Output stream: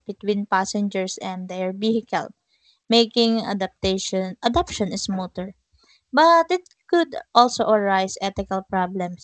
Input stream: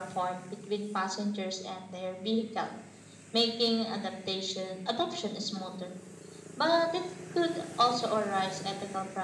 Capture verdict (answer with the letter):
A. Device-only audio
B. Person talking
A